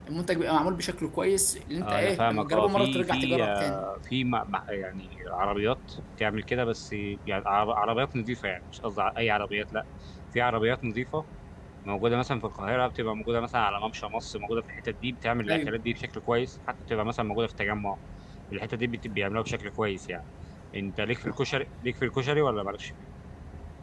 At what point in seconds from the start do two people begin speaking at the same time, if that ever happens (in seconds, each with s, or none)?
1.8 s